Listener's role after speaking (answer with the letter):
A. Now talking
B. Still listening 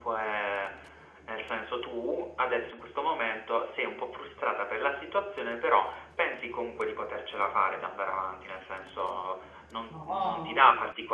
B